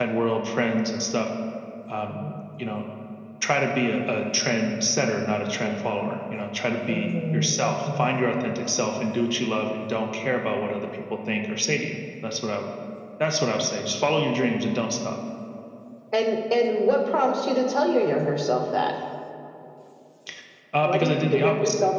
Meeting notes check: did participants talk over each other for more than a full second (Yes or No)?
Yes